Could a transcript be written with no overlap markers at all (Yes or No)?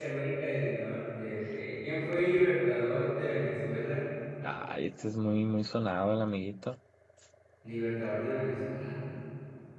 Yes